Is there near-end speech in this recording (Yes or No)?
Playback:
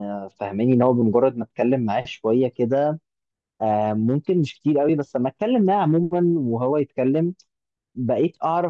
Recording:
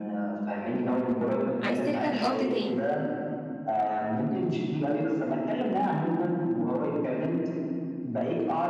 Yes